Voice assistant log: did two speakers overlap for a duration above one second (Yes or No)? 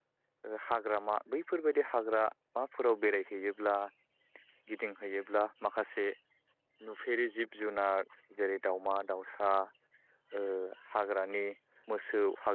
No